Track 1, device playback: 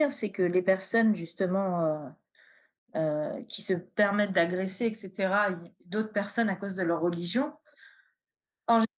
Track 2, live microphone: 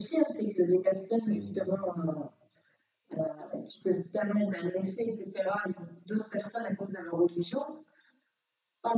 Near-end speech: present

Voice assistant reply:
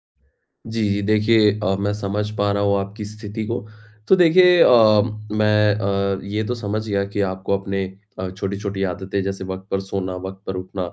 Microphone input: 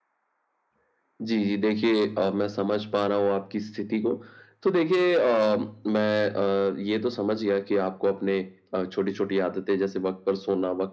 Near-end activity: none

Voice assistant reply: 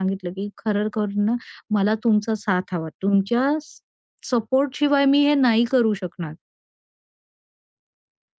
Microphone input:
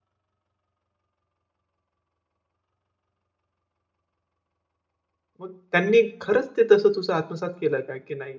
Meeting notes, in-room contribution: present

